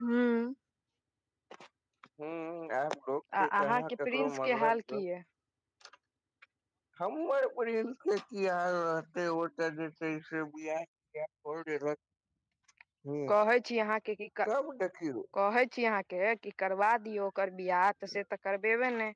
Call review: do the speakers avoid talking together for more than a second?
No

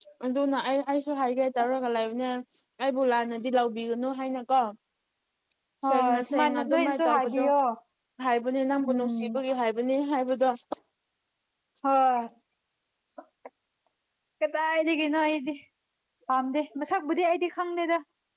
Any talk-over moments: Yes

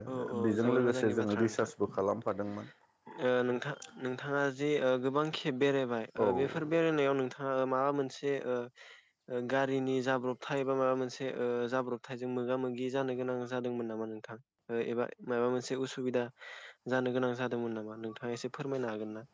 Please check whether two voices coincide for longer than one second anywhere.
Yes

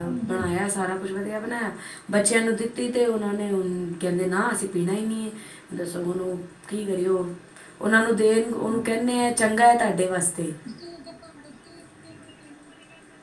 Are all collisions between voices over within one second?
Yes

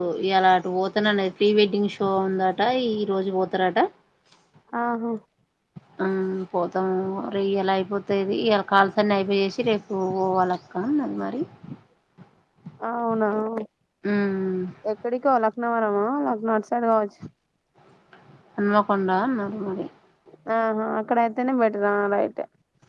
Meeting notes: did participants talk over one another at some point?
No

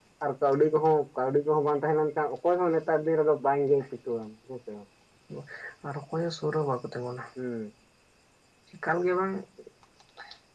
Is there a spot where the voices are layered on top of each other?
No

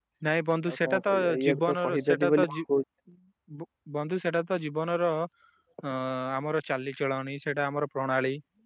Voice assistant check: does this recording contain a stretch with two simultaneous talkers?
Yes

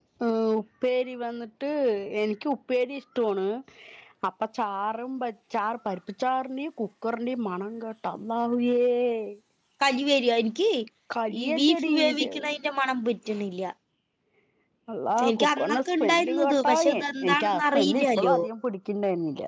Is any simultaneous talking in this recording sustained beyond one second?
Yes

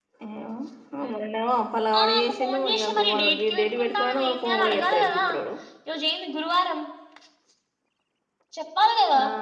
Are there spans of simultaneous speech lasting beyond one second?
Yes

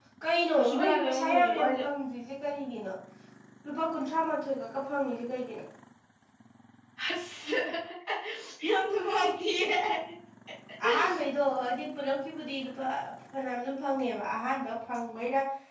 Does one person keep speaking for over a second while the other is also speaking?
Yes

